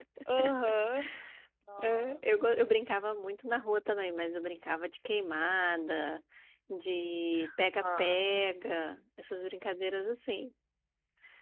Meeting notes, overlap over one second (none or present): none